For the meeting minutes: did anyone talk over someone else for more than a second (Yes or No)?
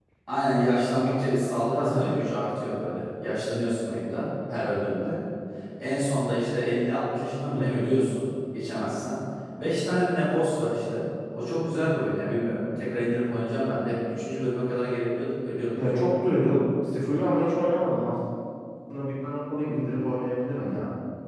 No